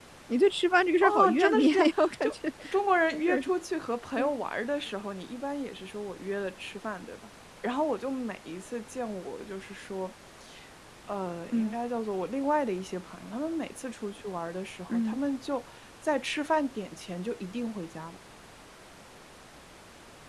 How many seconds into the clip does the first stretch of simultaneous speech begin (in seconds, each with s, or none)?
1.0 s